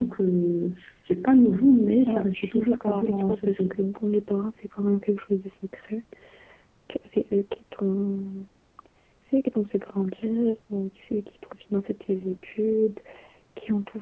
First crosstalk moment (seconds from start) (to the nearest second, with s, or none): 2 s